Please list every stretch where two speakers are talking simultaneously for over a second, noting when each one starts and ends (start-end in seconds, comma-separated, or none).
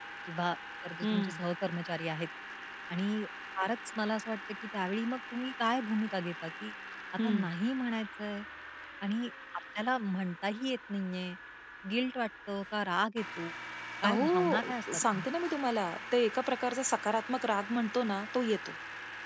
14.0-15.2